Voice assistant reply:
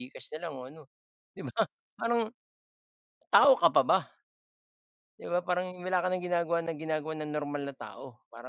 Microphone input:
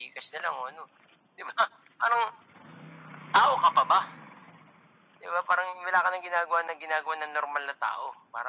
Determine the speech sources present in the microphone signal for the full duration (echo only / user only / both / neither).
echo only